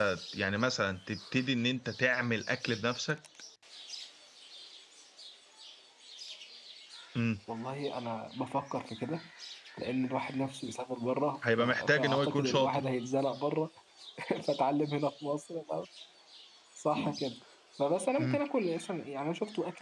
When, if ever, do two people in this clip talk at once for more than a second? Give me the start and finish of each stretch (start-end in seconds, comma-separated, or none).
11.6-12.8